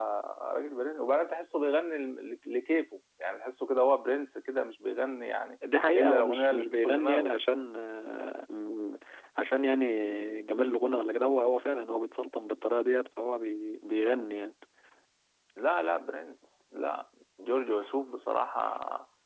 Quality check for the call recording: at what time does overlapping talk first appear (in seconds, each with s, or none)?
6.0 s